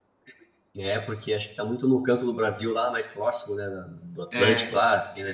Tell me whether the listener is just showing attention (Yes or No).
Yes